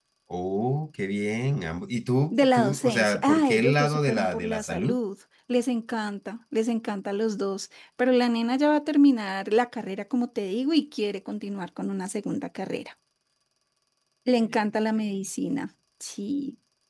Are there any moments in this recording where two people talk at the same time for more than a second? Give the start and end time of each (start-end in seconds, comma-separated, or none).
2.3-5.0